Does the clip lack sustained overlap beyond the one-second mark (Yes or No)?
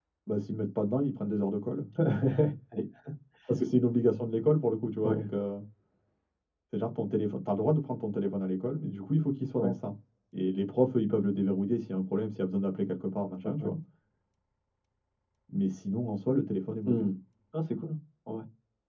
Yes